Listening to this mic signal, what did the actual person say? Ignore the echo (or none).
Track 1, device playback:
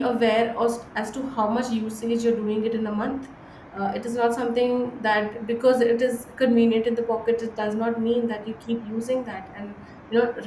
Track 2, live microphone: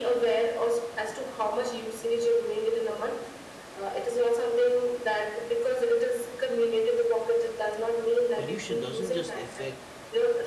pollution doesn't just affect